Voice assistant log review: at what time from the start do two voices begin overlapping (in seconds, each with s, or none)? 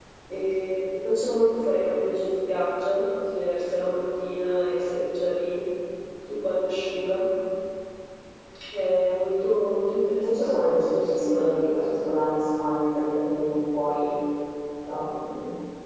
10.2 s